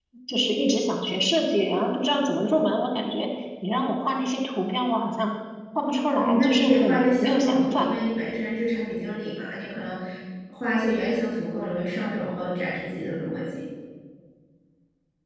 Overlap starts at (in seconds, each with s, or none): 6.1 s